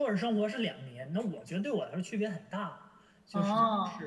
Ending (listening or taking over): listening